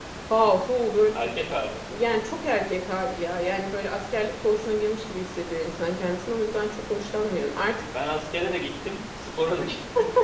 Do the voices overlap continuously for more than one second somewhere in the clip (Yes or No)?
No